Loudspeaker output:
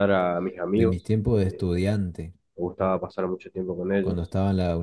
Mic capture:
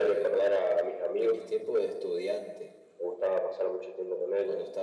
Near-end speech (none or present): none